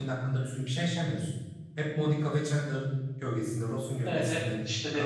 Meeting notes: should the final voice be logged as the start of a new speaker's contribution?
Yes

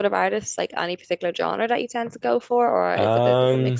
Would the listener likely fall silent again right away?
No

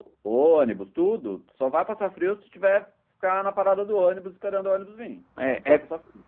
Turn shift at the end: Yes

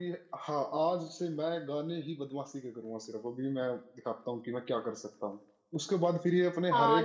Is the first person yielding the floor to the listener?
No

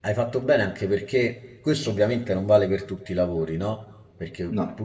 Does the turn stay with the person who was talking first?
Yes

